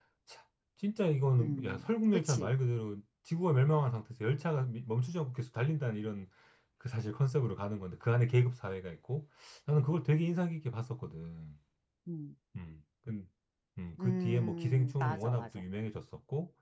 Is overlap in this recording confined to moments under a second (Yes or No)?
No